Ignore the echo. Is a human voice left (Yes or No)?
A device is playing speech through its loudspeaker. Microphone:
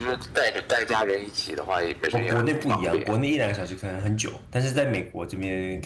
Yes